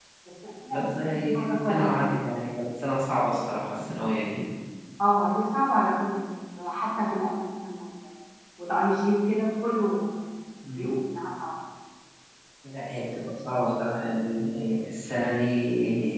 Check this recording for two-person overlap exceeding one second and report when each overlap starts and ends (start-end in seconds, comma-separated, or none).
0.7-1.9